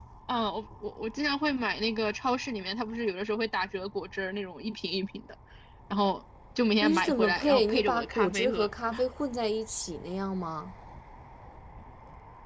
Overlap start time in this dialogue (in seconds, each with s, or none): 6.8 s